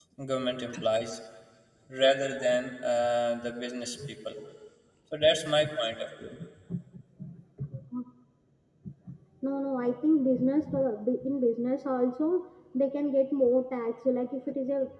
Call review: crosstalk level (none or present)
none